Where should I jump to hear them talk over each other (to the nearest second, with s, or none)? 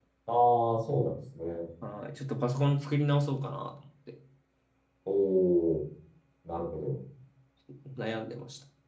none